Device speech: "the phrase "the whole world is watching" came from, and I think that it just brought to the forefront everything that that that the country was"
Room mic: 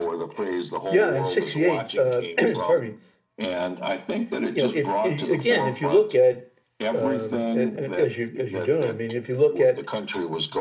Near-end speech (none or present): present